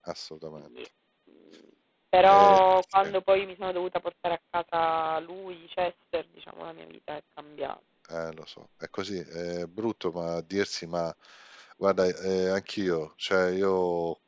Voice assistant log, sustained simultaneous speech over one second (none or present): none